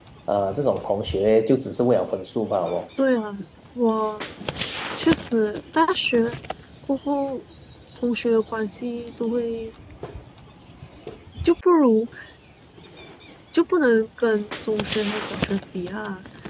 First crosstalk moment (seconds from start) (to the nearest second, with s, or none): none